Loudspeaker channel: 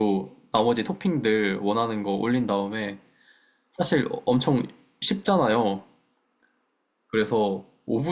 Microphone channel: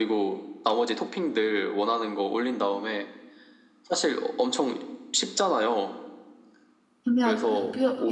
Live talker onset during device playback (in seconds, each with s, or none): 7.0 s